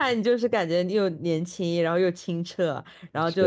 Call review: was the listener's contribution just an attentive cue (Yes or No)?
Yes